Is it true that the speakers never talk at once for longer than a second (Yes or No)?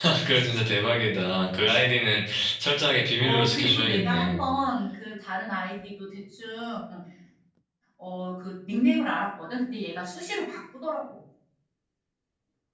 No